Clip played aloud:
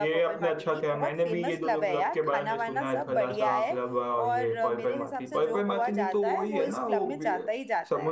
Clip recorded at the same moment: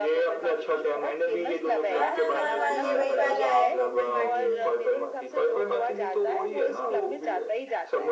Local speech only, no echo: हाँ हाँ हाँ हाँ ये वही वाला है पर्पल मार्टिनी

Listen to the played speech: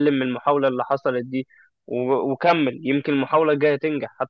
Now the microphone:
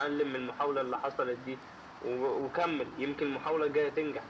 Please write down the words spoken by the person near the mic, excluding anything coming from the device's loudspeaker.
none

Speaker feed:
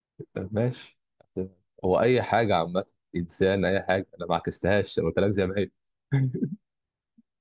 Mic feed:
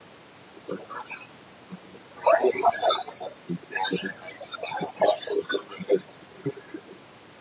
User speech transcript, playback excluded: none

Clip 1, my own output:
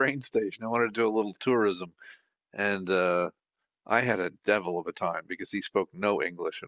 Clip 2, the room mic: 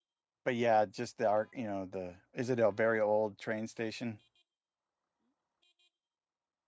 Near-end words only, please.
but yeah, just the art, you know, the is it a very old train station?

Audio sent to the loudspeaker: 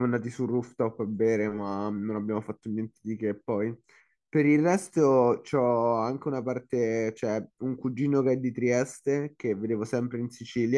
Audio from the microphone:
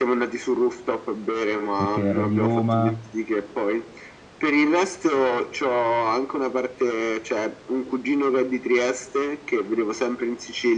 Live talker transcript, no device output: perché era di Roma,

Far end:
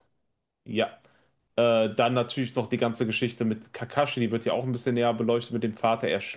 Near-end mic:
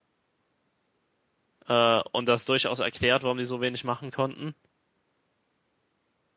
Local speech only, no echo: Äh, und das durchaus erklärt, warum die so wenig machen konnten.

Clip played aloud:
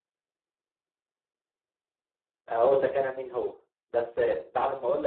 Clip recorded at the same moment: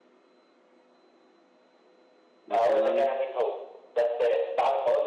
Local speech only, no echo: مثلا

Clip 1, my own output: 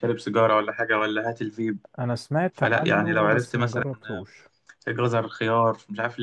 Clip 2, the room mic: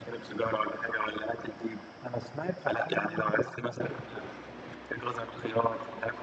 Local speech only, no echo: none

